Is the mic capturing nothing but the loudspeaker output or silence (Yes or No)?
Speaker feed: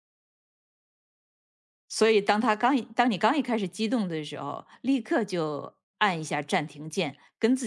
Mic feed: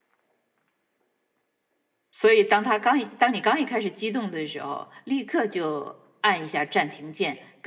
Yes